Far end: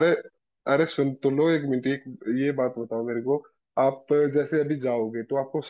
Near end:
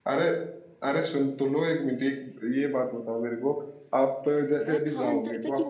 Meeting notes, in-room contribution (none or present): present